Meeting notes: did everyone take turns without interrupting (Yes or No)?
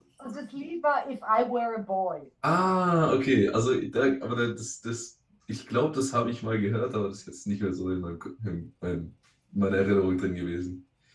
Yes